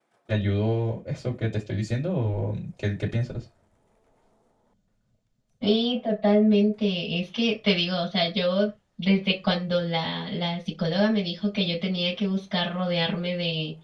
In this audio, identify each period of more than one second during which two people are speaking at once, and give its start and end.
none

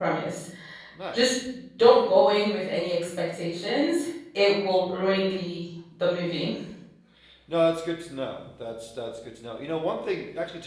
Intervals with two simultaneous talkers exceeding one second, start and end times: none

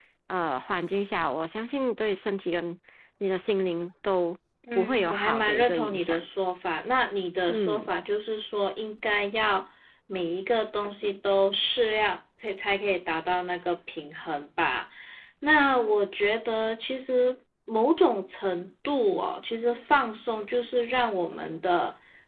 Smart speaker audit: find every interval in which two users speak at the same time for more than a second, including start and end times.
4.8-6.2

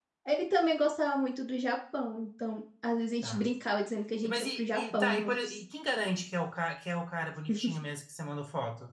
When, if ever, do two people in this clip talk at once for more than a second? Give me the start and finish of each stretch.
4.2-5.6

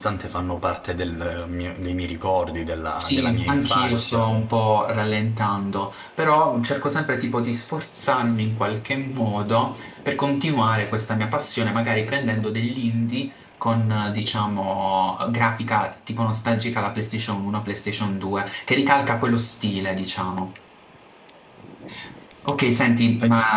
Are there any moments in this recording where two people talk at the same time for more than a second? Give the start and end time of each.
3.0-4.2

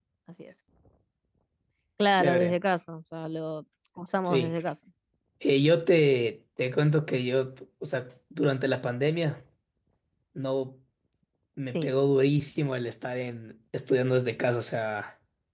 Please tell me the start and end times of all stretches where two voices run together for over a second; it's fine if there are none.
none

